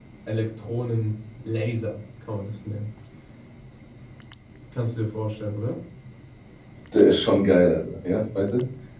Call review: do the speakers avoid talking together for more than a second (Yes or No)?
Yes